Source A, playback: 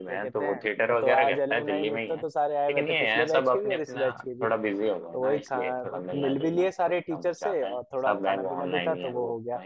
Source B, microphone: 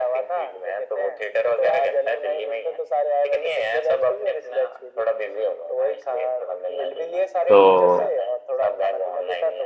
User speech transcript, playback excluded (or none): तो